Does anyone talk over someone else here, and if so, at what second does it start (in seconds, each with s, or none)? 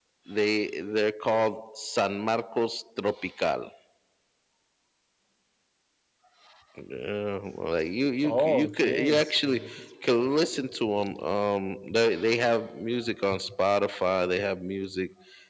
8.2 s